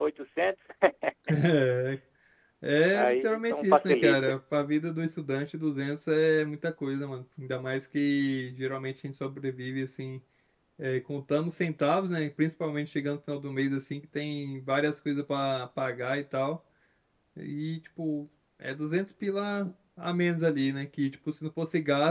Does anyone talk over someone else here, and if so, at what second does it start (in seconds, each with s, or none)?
2.9 s